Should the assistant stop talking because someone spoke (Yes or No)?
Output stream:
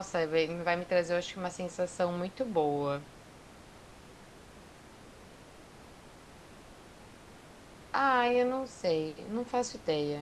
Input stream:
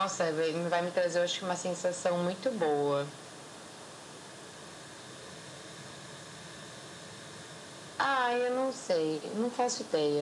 No